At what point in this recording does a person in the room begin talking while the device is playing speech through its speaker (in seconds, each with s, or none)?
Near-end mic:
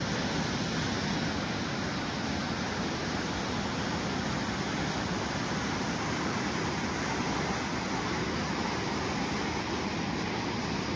none